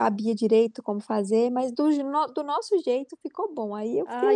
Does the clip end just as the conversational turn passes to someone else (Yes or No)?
Yes